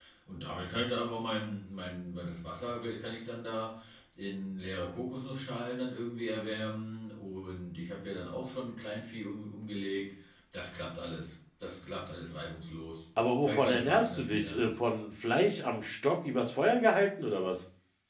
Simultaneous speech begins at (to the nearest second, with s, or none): 13 s